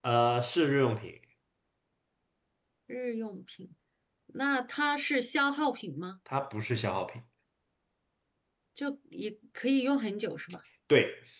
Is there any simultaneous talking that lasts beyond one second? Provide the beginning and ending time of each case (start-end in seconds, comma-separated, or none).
none